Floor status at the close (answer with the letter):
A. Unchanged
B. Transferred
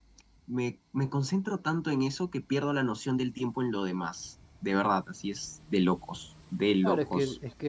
B